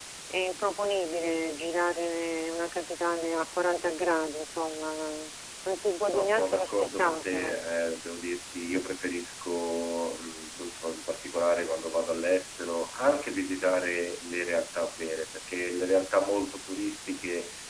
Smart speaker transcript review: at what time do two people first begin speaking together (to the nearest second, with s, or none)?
6 s